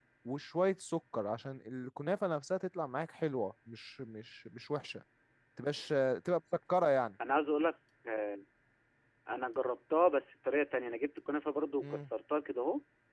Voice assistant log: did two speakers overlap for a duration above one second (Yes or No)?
No